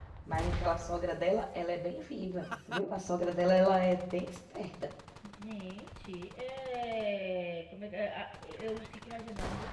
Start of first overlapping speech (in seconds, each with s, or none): none